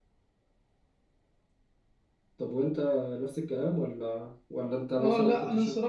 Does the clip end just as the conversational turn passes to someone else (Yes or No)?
Yes